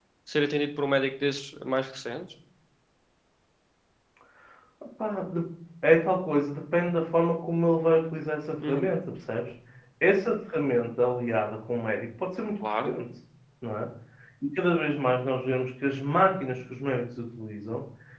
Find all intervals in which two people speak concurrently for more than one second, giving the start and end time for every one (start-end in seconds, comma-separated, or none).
none